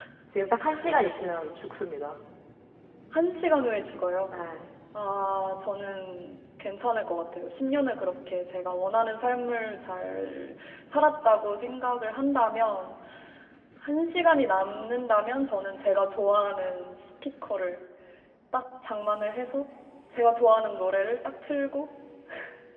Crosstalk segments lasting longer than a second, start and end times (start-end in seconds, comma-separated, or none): none